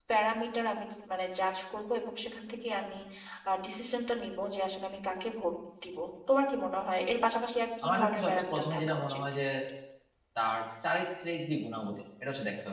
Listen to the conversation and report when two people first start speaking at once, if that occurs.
7.8 s

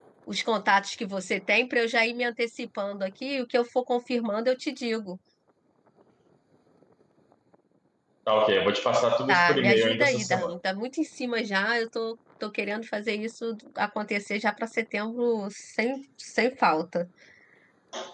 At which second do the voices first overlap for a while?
9.3 s

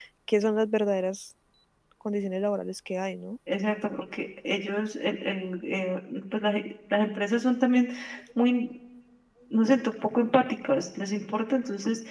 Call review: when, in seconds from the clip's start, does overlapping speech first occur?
none

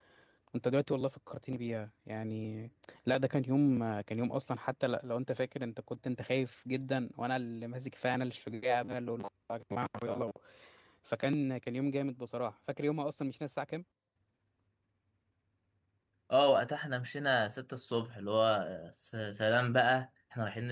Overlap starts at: none

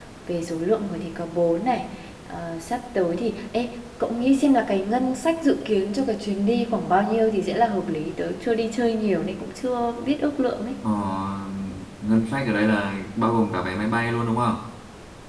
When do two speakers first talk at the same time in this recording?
none

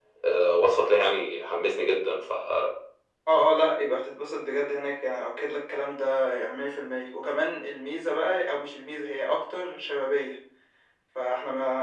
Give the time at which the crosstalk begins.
none

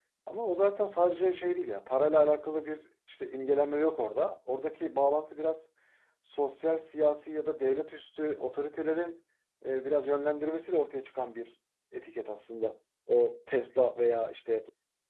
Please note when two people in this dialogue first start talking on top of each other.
none

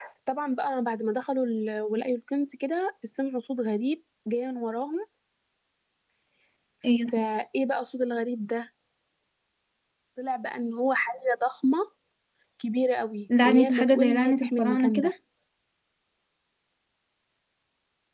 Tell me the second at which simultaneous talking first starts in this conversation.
13.4 s

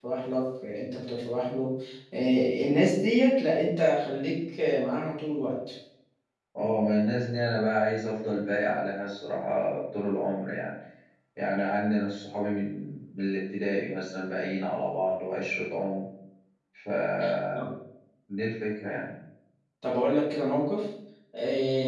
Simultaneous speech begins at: none

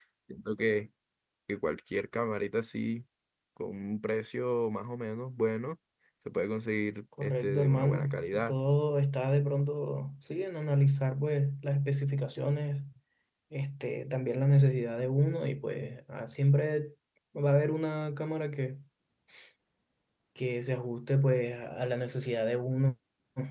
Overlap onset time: 7.2 s

